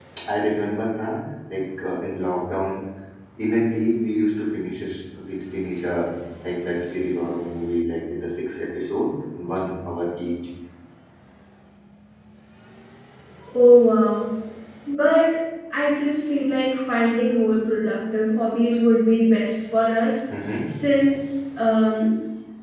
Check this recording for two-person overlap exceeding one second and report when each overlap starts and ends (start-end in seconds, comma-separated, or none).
none